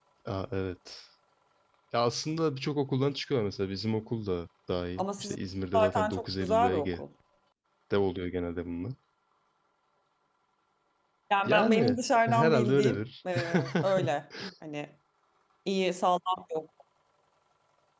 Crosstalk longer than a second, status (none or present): present